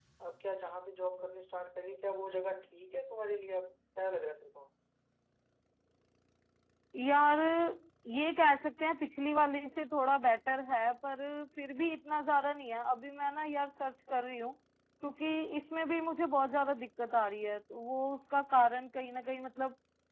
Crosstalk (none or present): none